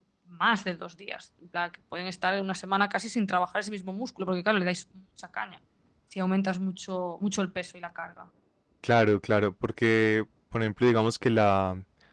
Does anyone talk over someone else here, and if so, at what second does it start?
none

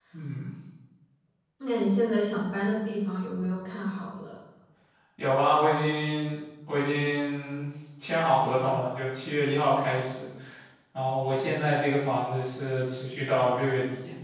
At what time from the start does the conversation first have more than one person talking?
none

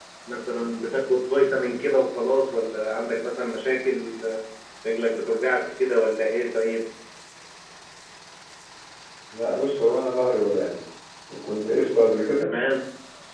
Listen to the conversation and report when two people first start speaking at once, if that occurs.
none

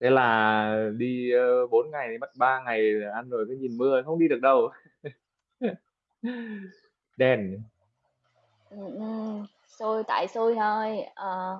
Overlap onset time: none

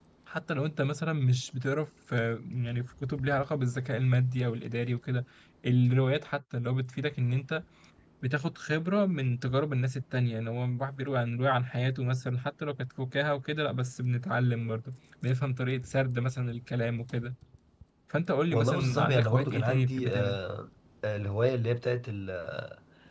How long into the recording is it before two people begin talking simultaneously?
18.5 s

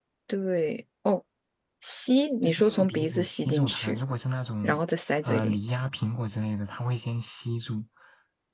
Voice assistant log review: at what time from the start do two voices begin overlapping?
2.5 s

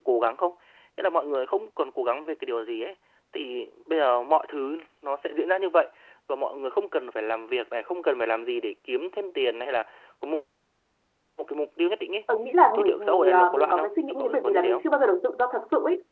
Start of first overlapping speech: 12.8 s

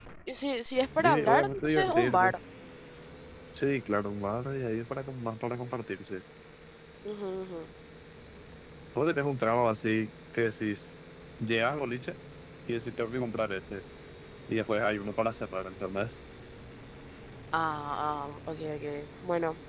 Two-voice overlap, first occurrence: 1.0 s

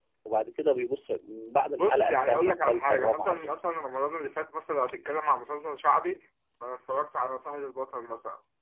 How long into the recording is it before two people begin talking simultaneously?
1.8 s

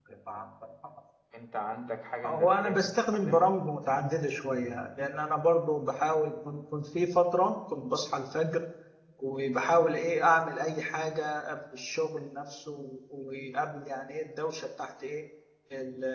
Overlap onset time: 2.2 s

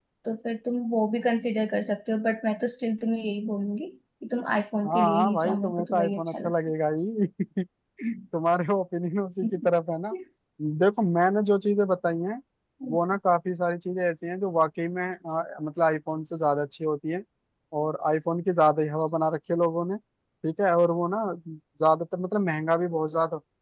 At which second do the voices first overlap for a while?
4.8 s

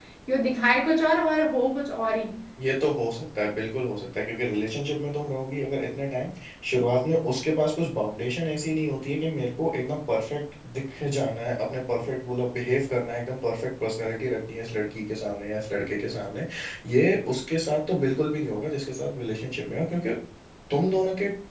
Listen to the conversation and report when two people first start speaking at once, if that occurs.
none

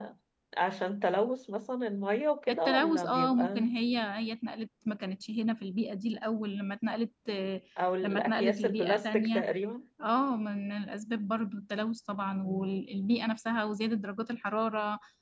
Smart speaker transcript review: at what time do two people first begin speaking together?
2.5 s

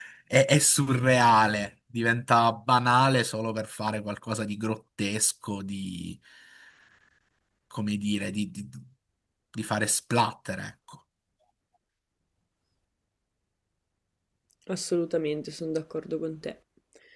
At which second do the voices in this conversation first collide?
none

